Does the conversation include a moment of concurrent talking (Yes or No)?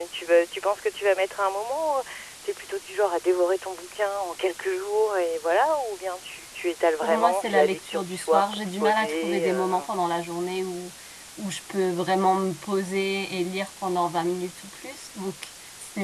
Yes